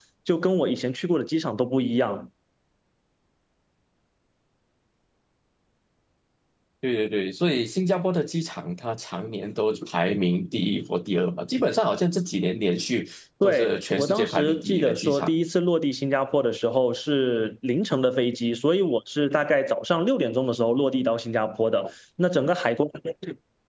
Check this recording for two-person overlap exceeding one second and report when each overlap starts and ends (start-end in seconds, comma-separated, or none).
13.4-15.3